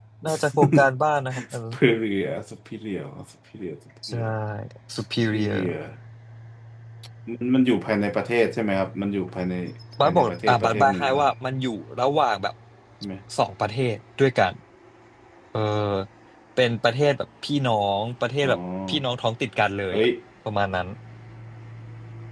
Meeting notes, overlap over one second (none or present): present